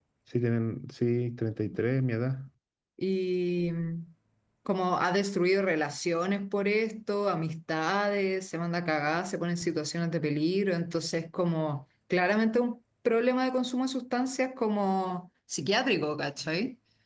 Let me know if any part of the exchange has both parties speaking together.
No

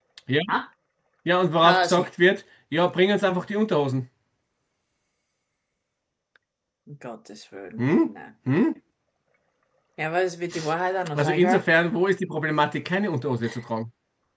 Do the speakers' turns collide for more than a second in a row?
No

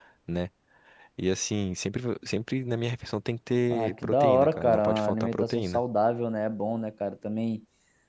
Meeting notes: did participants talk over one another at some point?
Yes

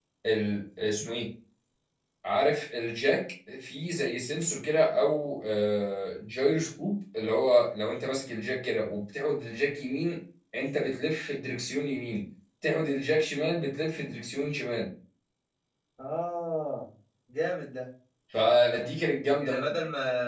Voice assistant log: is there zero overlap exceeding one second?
Yes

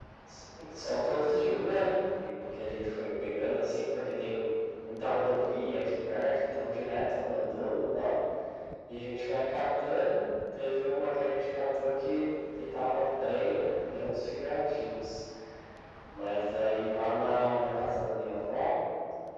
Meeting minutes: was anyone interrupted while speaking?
No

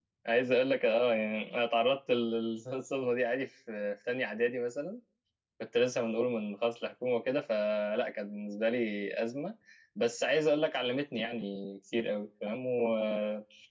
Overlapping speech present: No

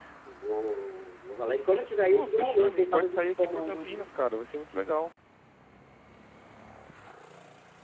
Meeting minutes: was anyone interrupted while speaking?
Yes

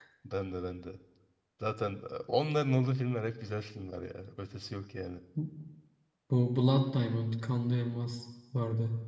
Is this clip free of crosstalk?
Yes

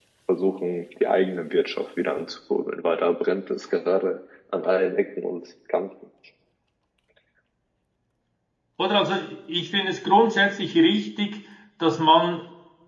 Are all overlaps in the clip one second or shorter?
Yes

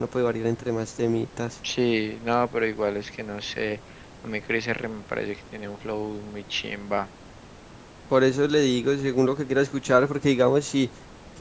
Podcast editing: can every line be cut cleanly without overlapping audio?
Yes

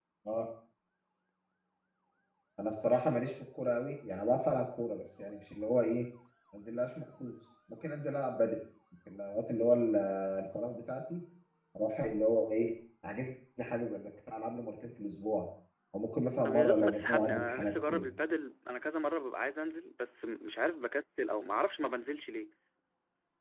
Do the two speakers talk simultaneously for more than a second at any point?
Yes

